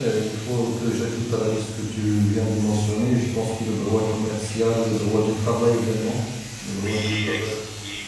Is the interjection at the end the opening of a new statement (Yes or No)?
Yes